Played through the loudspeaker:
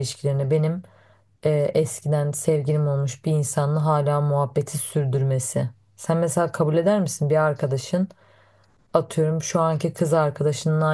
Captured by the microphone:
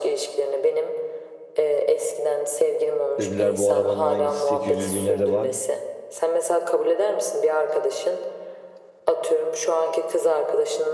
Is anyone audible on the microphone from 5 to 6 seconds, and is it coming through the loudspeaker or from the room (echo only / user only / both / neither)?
both